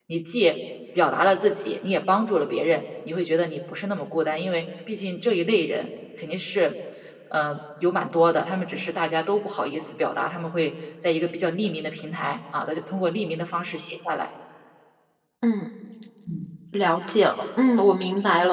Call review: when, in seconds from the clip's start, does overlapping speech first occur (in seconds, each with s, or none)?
none